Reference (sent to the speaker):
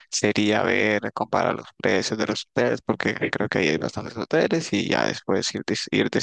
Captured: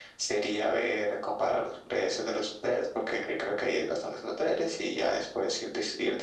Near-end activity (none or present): none